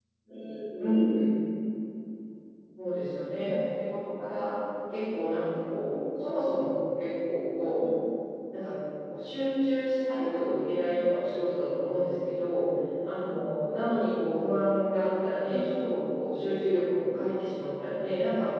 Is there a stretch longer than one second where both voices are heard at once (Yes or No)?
No